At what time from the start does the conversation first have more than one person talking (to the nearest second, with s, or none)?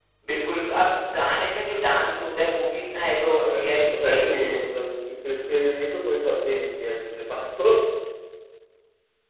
3 s